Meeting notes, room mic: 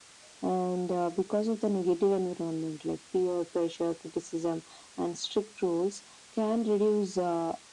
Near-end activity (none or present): none